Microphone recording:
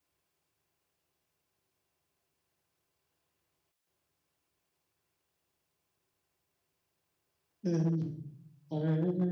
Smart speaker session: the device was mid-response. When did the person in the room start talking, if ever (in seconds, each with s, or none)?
7.6 s